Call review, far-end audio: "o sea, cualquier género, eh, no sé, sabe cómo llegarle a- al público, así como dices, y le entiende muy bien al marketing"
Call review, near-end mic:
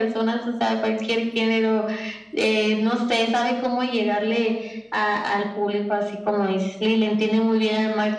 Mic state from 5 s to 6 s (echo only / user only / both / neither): echo only